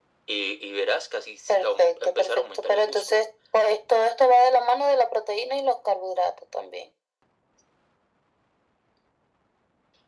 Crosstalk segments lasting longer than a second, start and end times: 1.5-3.3

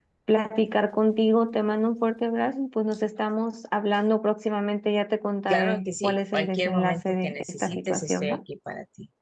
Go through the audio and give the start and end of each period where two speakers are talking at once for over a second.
5.5-8.4

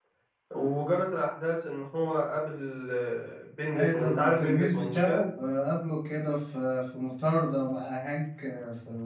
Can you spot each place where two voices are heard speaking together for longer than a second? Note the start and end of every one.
3.7-5.2

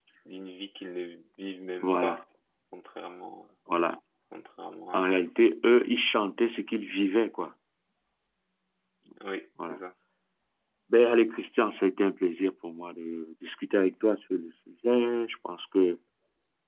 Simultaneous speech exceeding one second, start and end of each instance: none

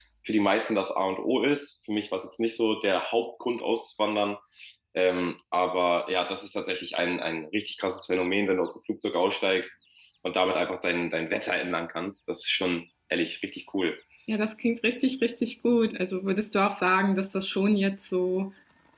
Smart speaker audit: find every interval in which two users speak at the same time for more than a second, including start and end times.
none

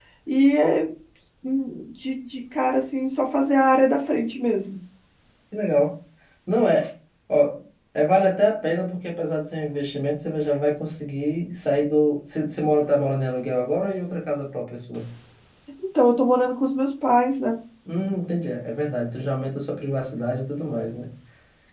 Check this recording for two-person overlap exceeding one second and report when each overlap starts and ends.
none

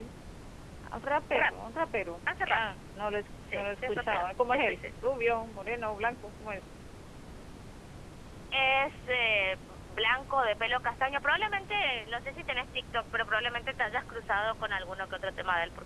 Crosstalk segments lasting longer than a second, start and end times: 3.5-4.8

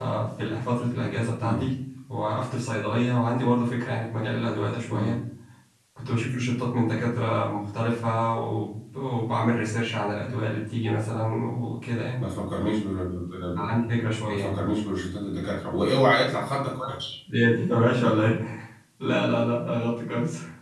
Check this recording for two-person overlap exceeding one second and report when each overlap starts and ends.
none

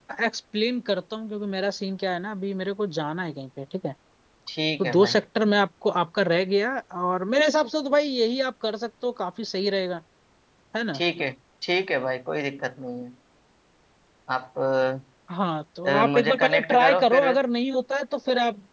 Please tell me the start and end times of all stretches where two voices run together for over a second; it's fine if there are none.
15.8-17.3

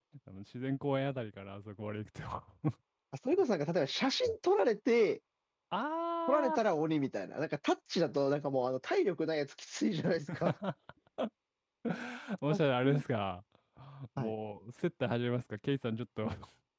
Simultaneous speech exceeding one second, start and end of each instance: none

